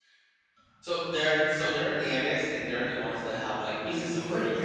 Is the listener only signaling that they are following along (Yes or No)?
No